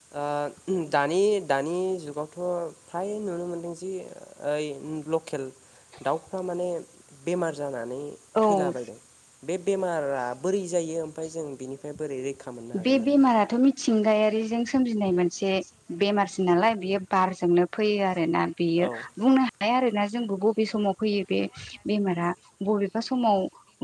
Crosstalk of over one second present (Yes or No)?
No